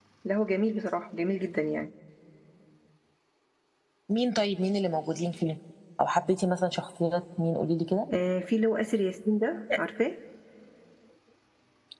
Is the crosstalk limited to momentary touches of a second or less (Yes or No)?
Yes